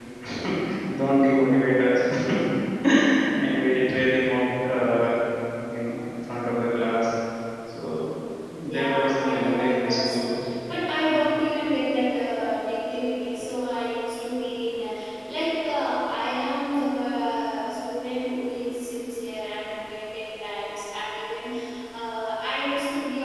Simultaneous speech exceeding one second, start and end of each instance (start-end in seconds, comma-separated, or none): 8.7-10.3